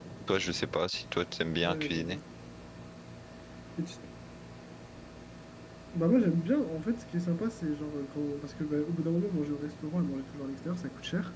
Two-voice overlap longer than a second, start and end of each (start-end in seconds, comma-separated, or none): none